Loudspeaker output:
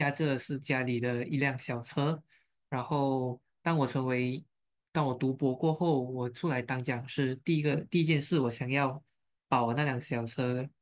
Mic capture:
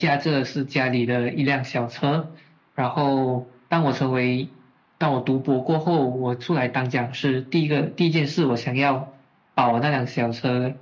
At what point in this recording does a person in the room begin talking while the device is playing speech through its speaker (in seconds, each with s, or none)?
none